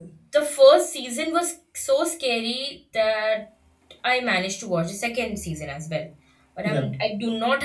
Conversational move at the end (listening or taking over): listening